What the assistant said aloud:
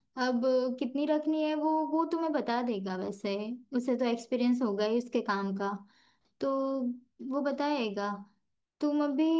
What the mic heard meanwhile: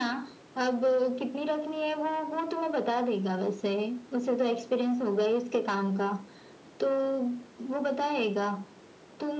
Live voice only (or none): none